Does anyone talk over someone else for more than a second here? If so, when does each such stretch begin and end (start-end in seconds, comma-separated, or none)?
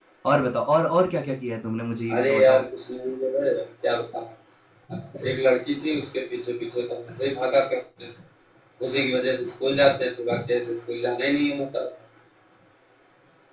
none